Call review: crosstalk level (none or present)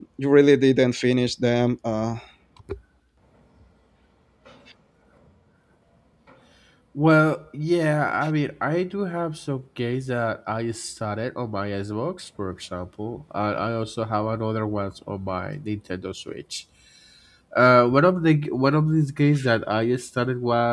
none